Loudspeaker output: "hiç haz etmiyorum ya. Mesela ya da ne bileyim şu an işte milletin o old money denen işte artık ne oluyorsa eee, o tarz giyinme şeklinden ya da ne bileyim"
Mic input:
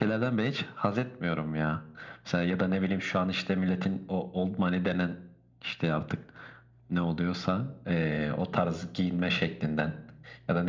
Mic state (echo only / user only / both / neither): echo only